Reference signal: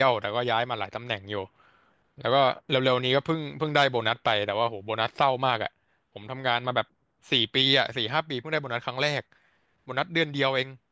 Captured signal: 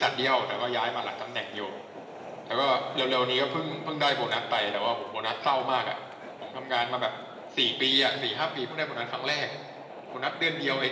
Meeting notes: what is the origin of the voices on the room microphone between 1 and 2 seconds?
echo only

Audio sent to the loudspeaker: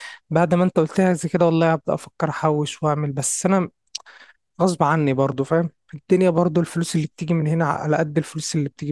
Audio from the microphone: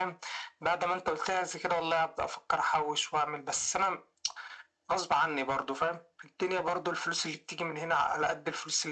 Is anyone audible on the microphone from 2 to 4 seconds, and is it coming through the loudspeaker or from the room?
echo only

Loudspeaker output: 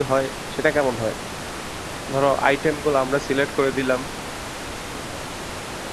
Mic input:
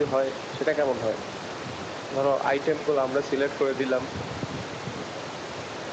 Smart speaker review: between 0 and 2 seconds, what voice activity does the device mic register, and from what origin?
echo only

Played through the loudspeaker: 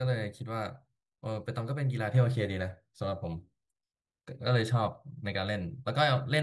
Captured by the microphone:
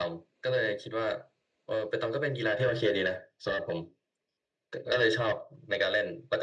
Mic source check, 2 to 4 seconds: echo only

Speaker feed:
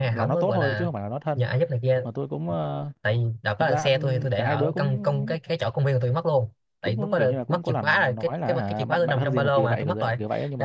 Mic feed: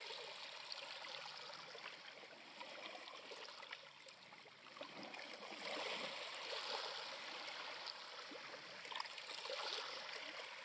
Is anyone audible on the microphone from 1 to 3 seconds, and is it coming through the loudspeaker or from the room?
neither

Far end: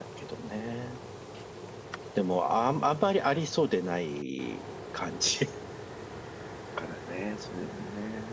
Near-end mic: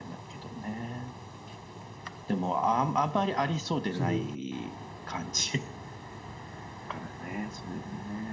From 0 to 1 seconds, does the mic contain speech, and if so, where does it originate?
echo only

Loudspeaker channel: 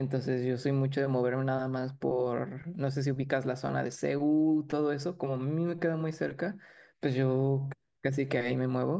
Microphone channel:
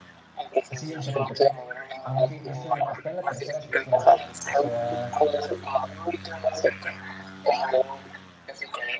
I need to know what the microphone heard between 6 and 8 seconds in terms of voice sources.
echo only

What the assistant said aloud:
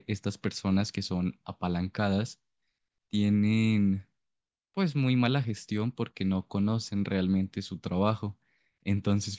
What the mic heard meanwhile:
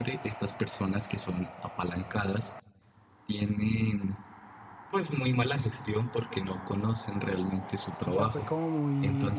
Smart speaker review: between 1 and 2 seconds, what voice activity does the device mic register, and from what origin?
echo only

